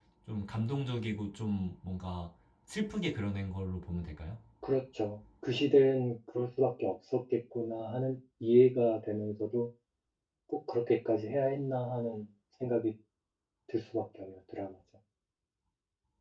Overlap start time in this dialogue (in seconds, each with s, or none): none